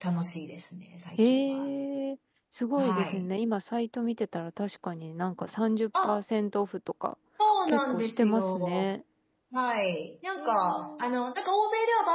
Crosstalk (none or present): present